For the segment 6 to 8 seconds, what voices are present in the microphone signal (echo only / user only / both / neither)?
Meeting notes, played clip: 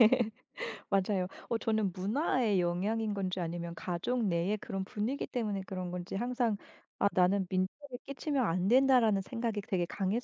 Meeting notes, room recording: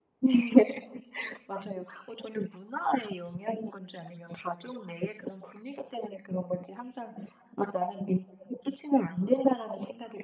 echo only